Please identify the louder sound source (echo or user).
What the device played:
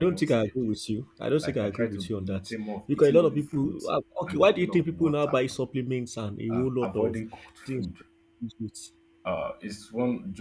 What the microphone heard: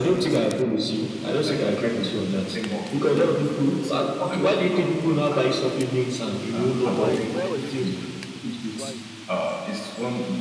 echo